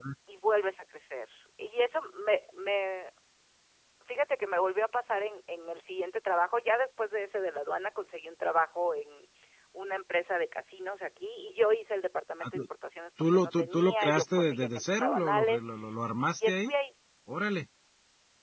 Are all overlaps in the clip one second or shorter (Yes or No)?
No